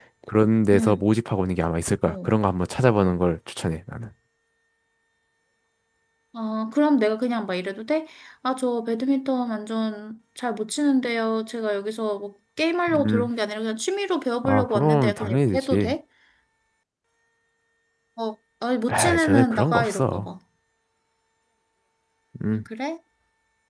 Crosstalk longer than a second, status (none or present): present